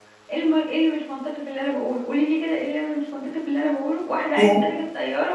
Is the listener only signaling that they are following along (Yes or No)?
Yes